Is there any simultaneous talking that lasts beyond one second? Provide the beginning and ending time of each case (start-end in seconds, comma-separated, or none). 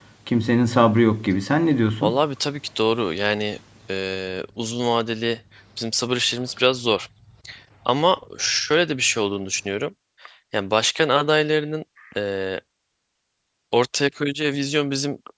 none